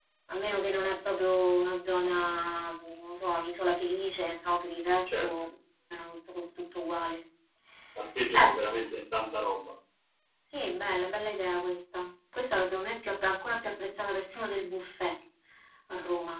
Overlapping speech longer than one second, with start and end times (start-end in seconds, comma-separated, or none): none